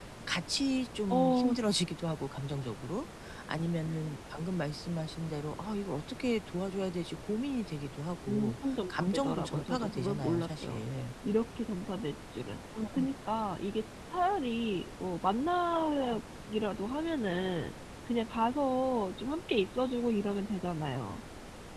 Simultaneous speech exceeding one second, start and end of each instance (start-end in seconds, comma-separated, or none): 8.3-10.8